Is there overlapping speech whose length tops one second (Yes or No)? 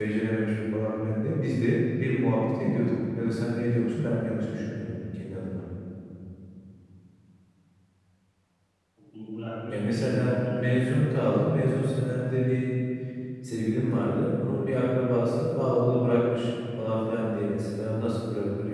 Yes